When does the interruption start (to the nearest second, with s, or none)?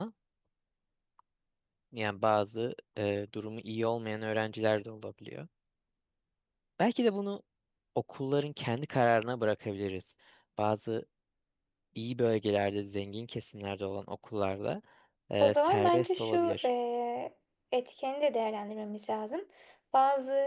15 s